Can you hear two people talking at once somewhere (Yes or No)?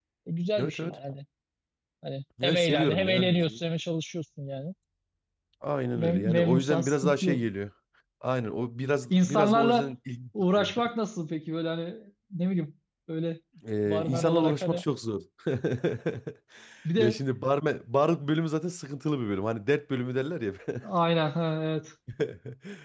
Yes